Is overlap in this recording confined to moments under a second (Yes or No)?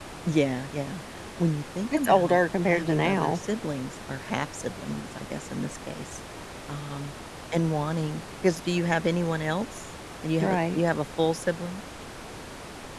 No